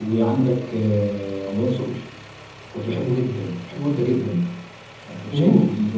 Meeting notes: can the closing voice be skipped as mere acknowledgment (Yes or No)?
Yes